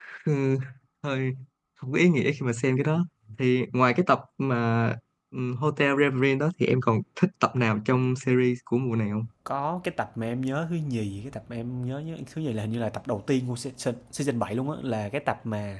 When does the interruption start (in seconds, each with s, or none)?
none